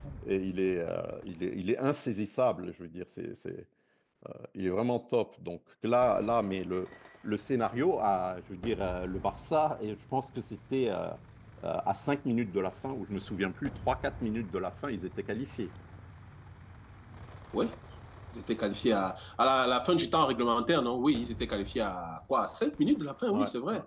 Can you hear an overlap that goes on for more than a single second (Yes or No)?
No